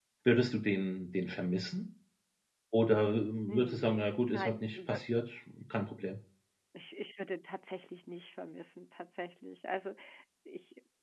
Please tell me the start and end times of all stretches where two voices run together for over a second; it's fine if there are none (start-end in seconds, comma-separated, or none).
3.5-5.0